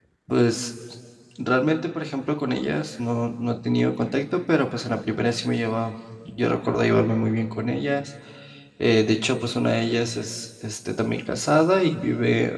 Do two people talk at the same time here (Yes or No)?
No